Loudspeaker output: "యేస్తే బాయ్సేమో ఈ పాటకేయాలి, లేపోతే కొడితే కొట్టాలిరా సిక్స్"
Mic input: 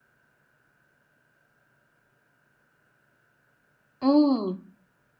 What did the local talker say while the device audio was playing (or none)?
హ్మ్.